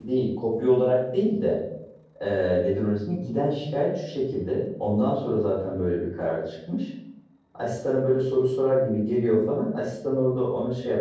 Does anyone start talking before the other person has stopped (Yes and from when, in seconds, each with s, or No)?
No